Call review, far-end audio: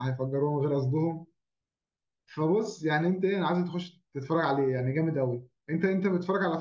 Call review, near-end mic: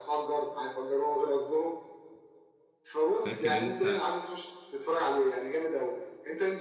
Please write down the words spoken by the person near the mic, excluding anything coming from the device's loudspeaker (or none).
فاكر انت